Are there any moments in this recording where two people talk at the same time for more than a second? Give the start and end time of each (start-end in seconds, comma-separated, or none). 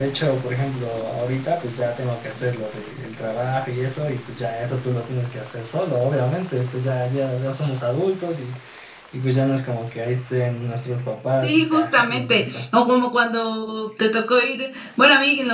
11.4-12.6